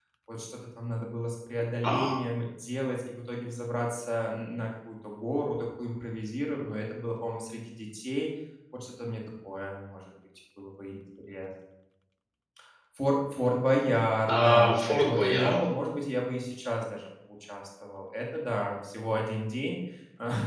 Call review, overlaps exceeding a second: present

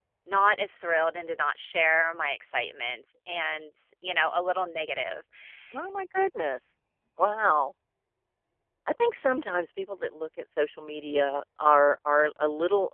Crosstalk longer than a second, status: none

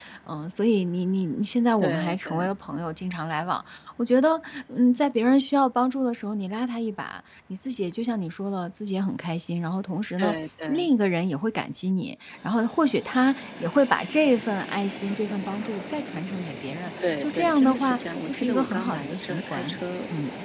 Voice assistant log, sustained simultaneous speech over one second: present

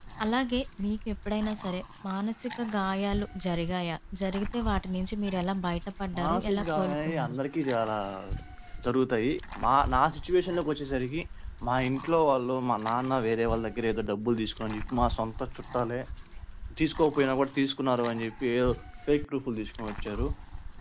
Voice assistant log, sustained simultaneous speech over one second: present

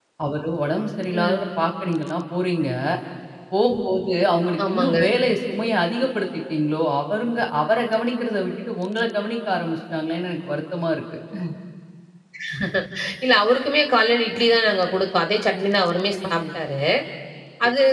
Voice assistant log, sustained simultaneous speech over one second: none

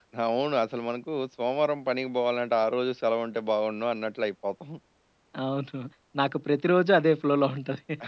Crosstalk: none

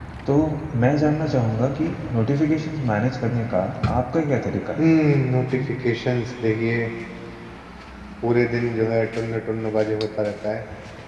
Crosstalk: none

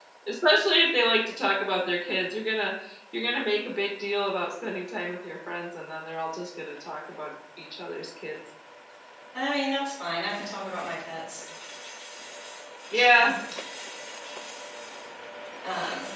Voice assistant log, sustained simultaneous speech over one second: none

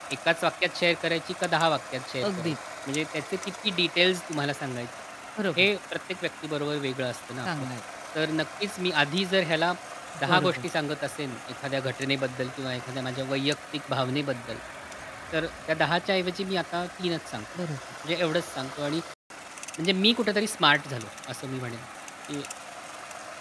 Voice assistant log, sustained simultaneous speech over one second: none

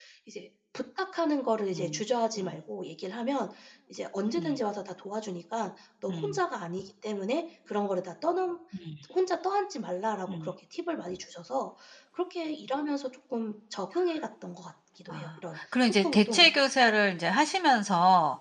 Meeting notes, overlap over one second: present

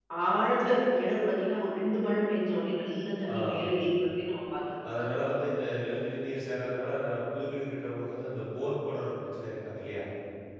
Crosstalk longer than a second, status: none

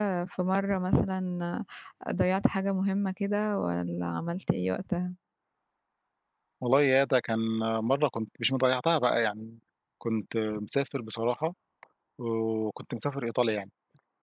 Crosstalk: none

